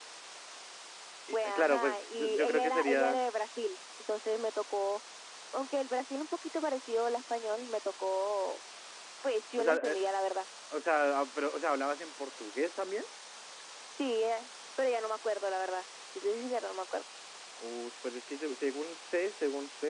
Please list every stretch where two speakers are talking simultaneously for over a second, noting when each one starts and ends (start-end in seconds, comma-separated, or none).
1.5-3.2